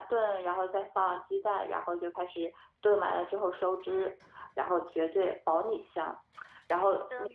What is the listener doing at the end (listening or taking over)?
listening